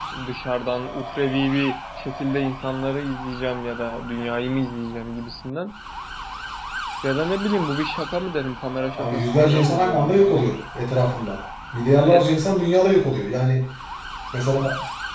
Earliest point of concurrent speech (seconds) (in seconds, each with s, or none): 9.0 s